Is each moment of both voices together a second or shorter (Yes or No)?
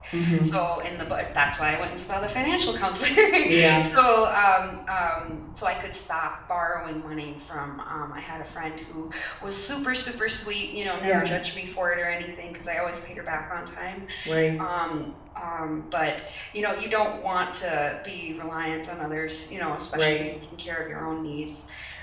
Yes